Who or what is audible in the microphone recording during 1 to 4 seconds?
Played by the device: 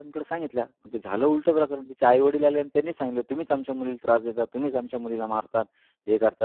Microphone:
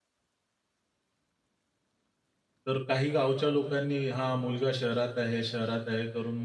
user only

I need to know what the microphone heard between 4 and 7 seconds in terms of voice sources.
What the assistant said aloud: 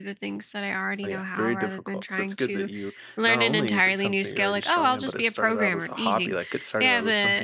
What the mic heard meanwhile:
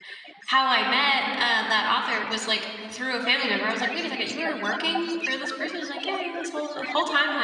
both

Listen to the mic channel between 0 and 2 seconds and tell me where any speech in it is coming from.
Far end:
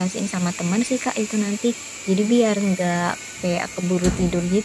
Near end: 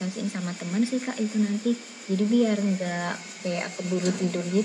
echo only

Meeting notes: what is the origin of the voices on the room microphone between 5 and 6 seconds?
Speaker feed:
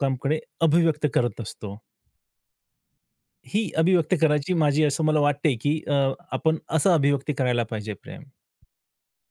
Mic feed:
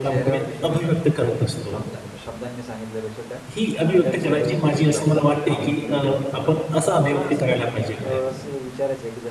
both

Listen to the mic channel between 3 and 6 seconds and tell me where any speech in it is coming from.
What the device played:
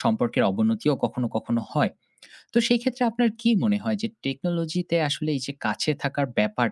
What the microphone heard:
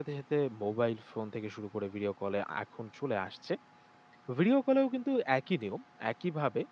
user only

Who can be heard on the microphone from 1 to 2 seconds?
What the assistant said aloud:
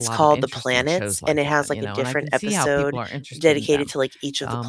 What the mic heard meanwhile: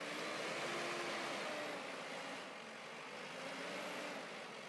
neither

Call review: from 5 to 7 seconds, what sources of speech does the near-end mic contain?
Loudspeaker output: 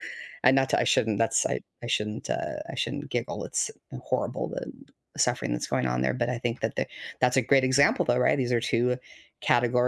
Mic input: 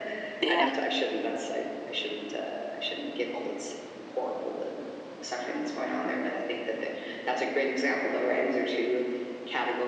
echo only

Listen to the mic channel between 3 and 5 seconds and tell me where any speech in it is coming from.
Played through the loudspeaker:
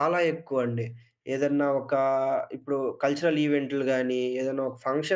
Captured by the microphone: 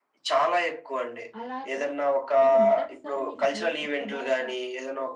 both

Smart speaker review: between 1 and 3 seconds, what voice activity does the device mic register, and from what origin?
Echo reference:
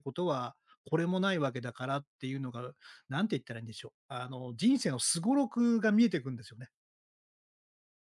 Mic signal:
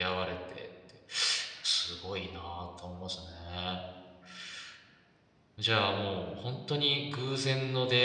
user only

